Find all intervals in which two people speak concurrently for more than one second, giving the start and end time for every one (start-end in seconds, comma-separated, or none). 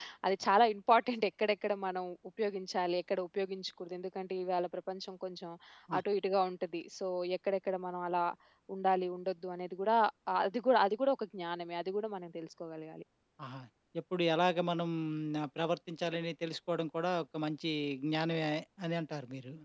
none